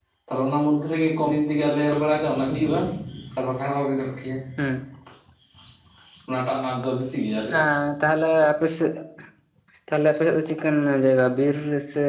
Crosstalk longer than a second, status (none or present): none